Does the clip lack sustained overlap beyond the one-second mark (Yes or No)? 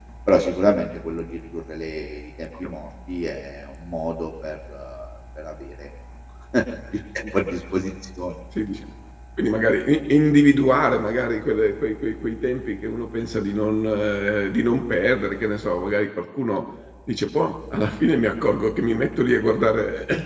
Yes